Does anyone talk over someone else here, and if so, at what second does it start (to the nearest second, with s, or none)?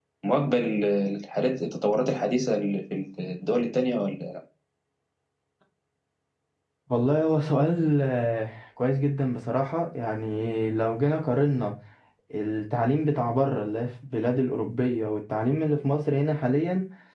none